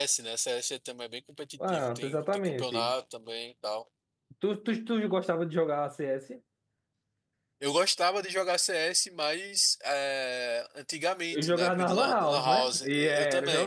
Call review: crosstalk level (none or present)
present